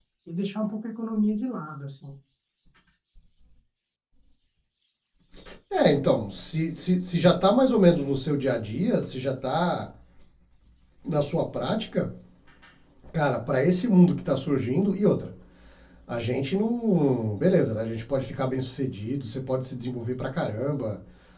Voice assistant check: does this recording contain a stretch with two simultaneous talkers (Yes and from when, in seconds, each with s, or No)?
No